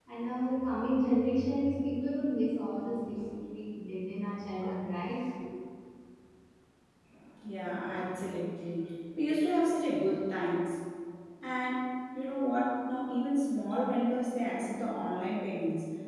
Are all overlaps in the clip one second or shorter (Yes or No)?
Yes